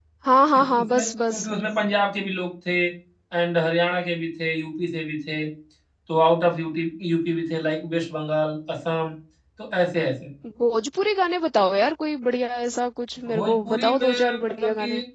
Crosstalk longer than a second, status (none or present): present